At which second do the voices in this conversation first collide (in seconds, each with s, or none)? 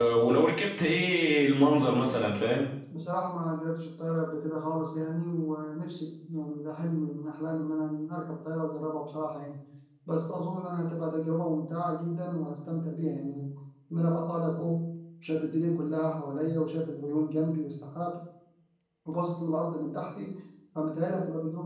none